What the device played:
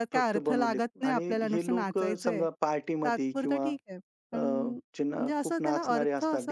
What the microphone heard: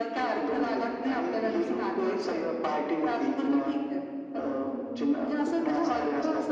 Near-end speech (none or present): none